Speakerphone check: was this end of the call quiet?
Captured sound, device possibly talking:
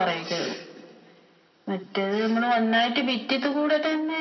Yes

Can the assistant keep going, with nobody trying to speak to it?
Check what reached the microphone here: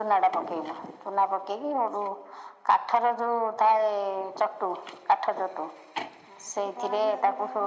No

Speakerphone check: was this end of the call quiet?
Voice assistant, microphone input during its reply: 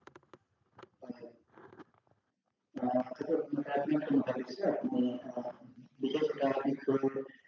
Yes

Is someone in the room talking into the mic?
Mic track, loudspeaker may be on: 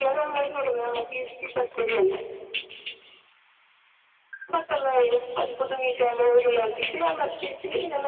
No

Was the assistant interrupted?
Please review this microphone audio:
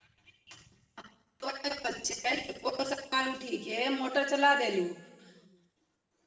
Yes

